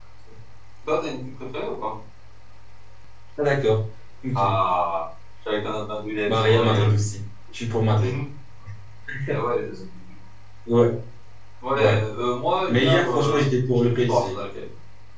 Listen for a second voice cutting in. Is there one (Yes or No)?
Yes